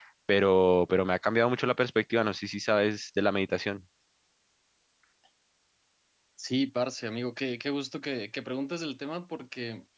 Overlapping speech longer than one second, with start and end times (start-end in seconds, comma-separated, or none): none